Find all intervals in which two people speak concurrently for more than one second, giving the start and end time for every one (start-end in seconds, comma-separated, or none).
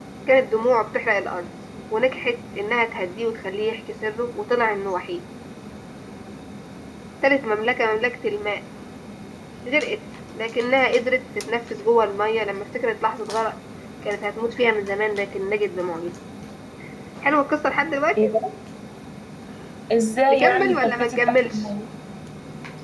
20.3-21.6